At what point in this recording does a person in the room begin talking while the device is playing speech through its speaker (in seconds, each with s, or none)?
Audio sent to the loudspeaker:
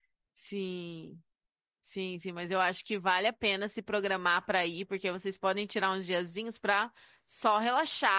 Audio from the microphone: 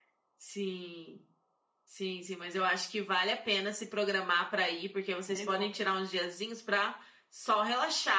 5.2 s